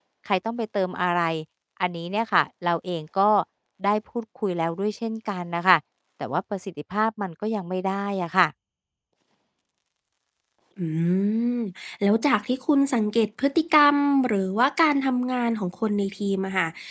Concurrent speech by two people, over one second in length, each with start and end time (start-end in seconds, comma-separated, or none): none